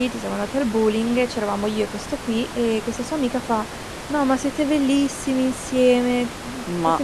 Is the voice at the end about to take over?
No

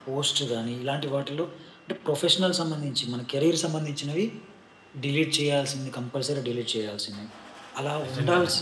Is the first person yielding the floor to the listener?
No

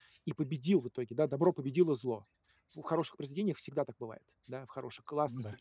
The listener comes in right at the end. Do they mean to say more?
No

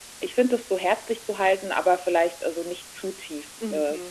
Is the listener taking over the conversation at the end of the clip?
Yes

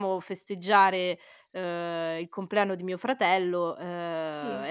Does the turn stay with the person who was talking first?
Yes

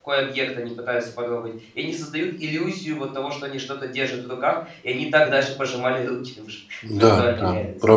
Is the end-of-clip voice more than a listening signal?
Yes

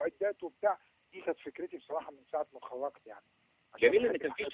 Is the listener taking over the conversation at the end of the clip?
Yes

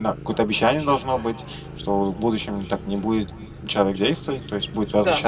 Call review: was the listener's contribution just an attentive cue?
Yes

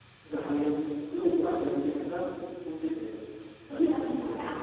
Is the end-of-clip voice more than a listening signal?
Yes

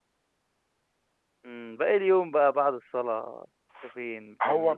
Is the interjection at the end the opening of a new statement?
Yes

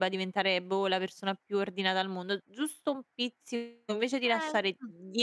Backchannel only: Yes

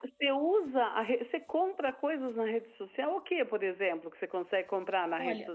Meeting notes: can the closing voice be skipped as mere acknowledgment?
No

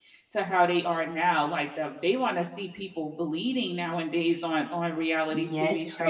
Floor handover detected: Yes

